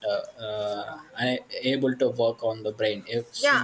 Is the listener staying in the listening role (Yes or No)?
No